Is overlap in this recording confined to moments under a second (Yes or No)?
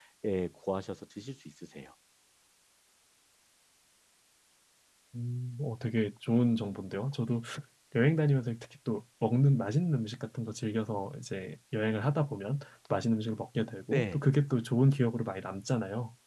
Yes